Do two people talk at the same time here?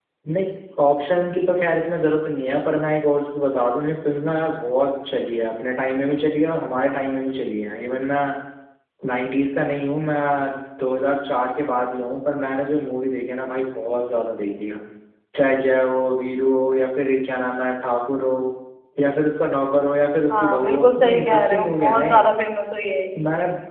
Yes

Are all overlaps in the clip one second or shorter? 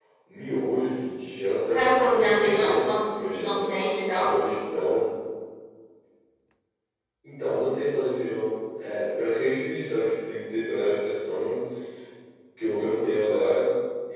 No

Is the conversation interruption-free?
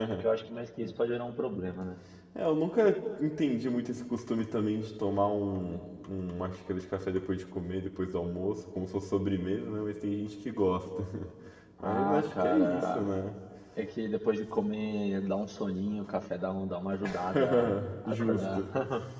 No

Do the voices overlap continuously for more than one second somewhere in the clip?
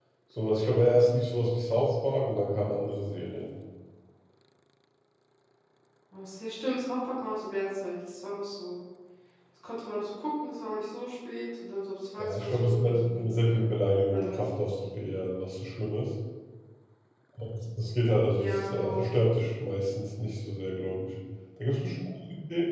Yes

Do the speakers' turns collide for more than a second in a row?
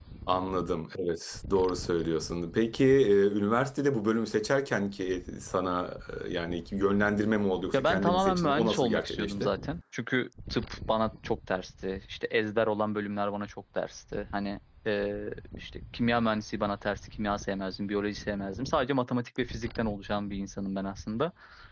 Yes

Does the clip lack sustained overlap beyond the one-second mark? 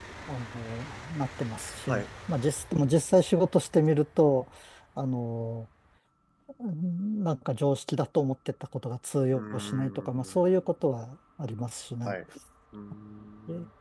No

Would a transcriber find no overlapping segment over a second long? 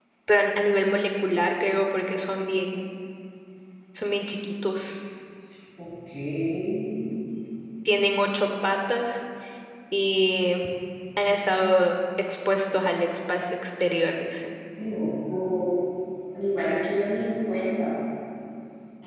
Yes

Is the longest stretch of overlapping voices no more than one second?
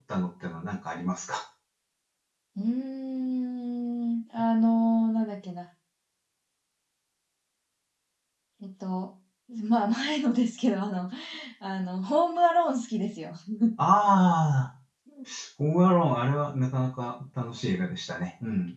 Yes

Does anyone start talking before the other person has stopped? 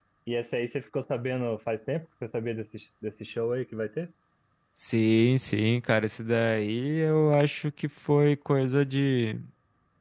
No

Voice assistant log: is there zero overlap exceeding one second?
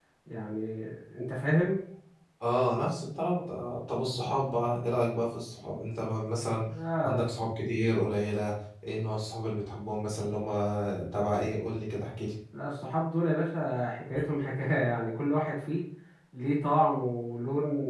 Yes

